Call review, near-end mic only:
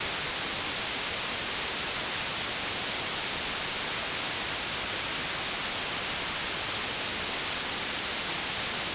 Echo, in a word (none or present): none